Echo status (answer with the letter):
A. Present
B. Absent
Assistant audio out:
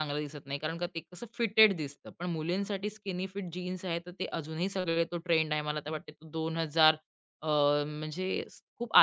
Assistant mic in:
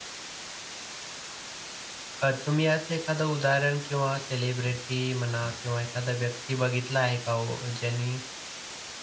B